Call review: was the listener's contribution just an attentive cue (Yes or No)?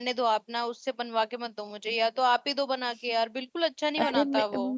No